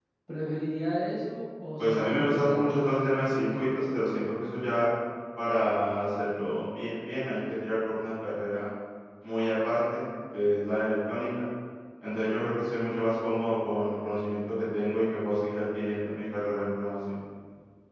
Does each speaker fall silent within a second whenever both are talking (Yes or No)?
No